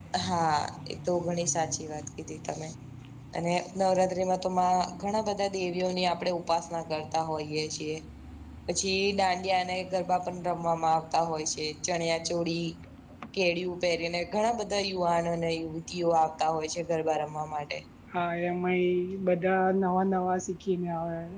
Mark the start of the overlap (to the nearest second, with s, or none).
none